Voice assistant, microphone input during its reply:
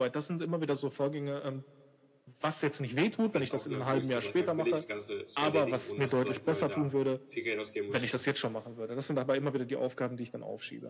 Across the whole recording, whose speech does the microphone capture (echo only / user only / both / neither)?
both